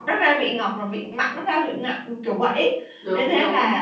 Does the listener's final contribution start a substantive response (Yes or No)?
No